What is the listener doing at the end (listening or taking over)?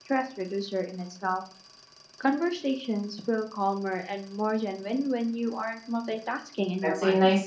taking over